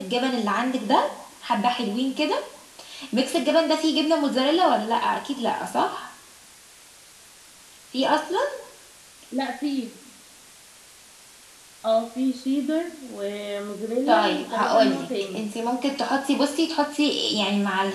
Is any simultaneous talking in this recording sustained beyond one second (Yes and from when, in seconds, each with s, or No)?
Yes, from 14.1 s